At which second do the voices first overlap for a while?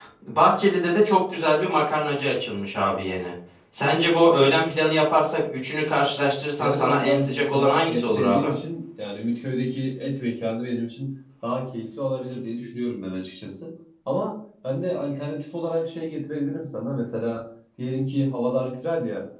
6.6 s

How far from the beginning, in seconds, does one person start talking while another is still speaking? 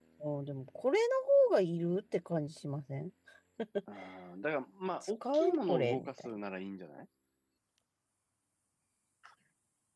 5.0 s

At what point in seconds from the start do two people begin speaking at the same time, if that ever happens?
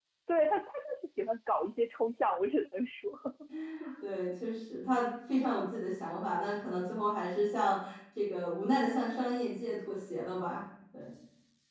none

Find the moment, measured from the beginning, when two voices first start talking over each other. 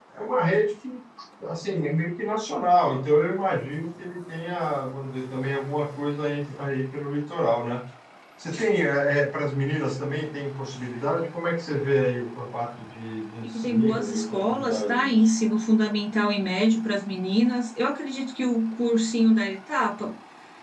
13.4 s

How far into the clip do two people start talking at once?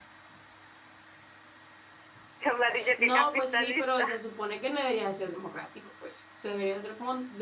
3.0 s

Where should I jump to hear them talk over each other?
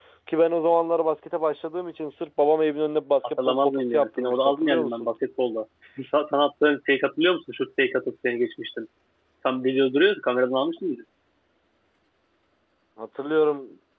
3.4 s

